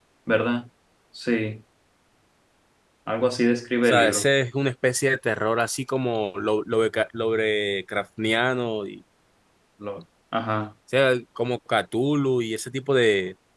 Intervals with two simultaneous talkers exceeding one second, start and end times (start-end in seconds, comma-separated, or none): none